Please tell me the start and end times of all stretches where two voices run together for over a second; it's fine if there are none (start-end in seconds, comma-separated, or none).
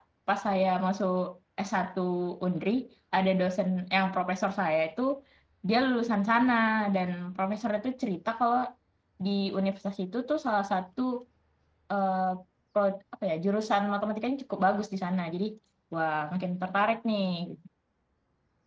none